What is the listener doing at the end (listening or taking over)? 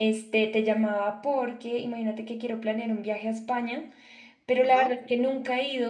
listening